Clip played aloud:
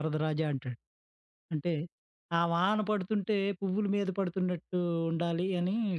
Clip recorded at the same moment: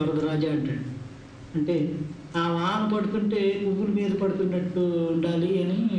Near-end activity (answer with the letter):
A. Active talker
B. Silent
B